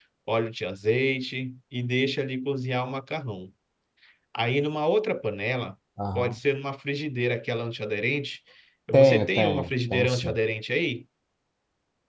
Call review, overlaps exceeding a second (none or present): present